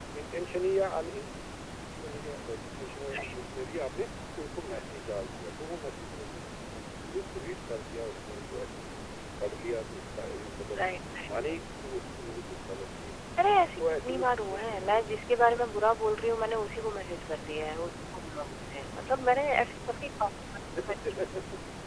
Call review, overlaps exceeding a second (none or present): present